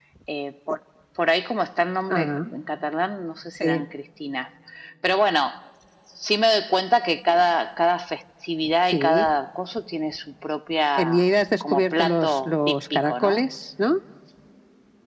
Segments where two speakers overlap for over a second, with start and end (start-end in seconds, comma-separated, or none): 11.6-13.4